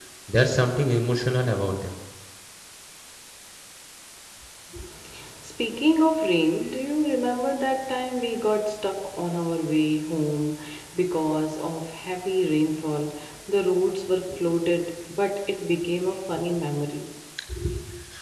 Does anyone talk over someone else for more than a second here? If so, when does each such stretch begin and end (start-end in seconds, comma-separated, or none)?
none